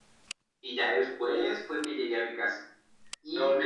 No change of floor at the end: Yes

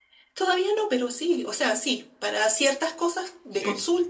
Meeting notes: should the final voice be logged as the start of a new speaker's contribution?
No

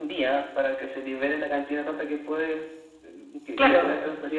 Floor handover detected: Yes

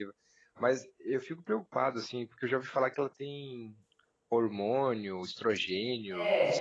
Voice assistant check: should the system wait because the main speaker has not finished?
No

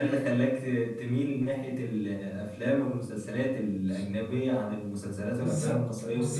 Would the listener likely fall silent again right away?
No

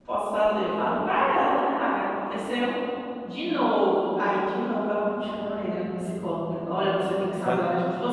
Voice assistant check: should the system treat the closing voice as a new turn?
No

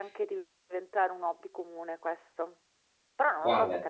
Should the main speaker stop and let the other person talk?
No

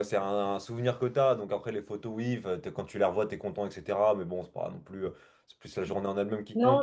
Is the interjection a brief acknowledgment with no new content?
No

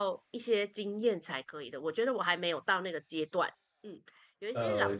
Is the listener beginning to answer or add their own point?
No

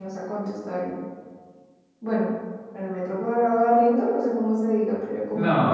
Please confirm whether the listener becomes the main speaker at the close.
Yes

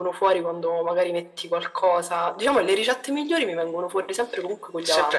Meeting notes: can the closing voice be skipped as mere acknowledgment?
No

